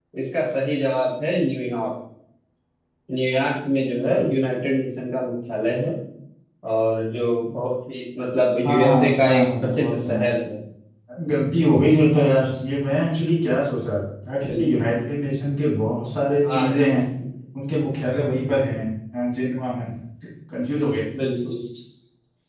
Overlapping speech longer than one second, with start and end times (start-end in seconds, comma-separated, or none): 8.6-10.3